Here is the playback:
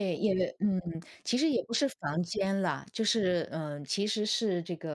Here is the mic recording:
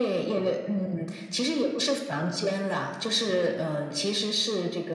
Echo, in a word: present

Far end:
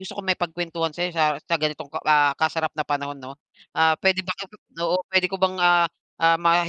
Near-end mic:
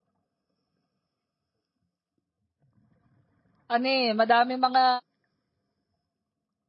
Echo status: none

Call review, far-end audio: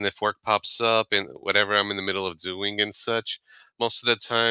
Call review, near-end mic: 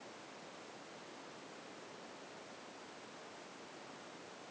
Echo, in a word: none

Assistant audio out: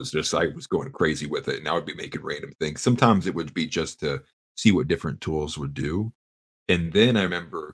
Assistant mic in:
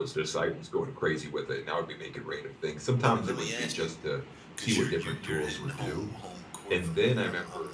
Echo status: present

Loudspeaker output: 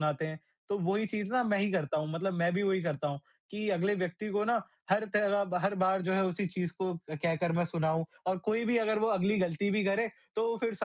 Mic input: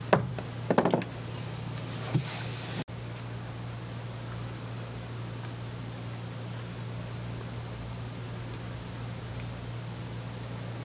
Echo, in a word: none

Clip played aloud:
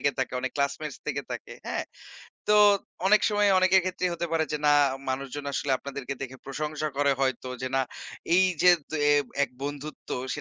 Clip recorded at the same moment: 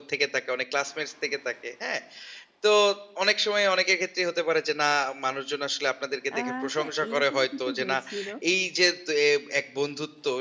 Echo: present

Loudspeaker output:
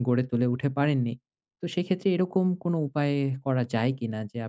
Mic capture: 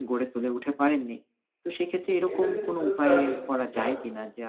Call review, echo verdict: present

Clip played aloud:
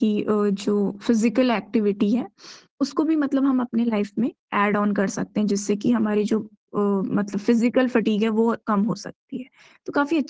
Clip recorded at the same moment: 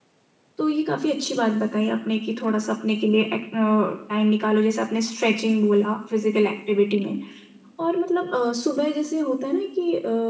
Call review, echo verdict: none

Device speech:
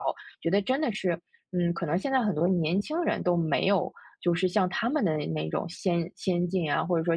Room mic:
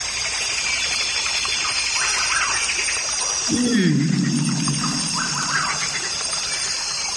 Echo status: none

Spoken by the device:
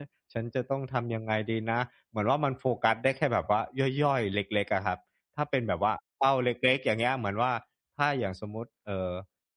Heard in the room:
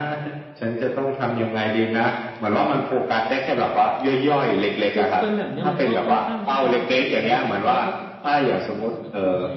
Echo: present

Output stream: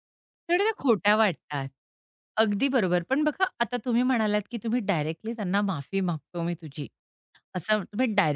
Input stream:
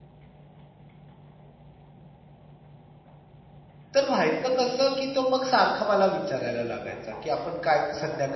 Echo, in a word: none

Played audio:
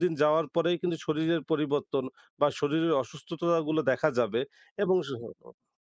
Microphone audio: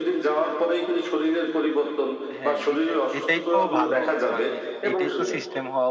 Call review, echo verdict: present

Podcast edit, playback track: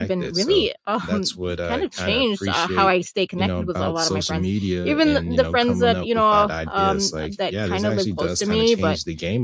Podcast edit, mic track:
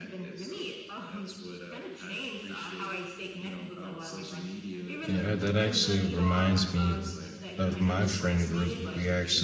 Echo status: present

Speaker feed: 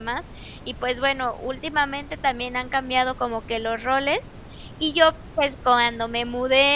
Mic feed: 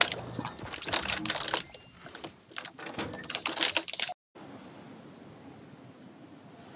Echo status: none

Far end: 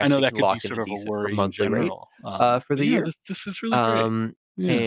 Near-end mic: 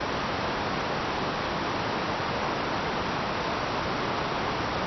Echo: none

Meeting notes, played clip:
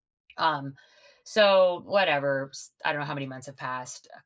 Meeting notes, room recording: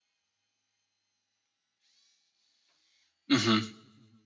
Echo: none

